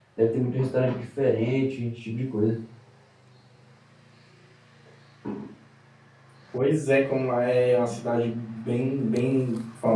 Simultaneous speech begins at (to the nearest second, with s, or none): none